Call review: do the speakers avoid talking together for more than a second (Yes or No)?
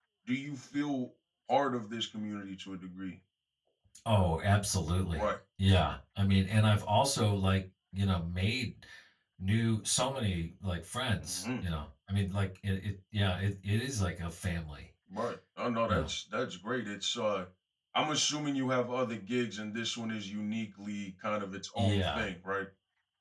Yes